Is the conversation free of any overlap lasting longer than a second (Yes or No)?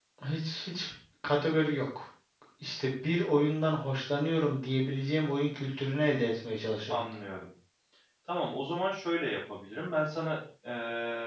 Yes